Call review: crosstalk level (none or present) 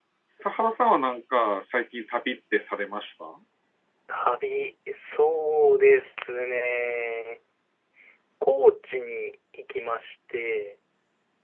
none